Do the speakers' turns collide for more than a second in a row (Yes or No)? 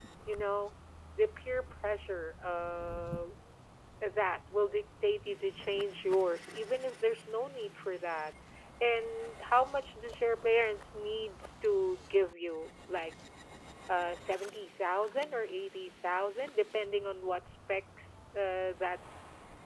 No